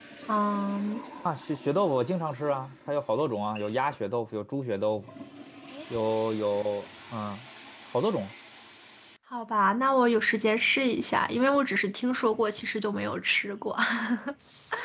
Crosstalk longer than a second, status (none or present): none